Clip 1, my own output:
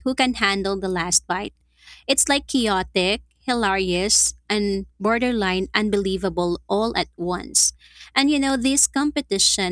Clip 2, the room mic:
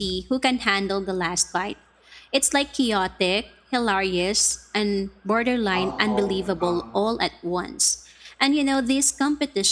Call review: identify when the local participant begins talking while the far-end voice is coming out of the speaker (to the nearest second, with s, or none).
6 s